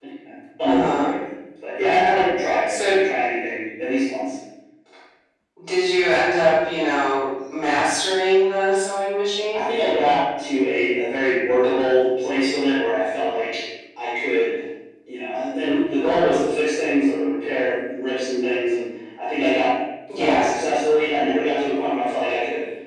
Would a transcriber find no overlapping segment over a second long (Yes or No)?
Yes